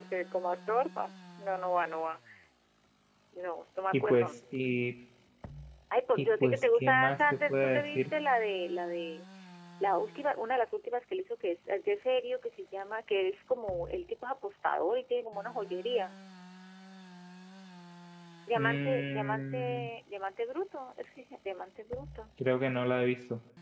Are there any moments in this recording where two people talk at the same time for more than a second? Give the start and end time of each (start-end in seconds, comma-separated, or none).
6.2-8.1, 18.6-19.9